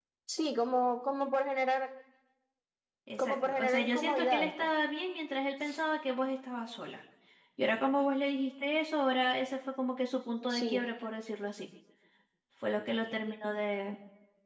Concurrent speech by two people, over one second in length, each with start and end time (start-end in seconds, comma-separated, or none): 3.2-4.7